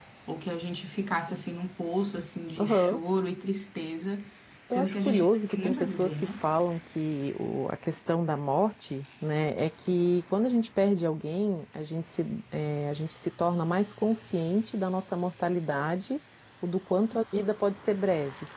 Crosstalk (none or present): present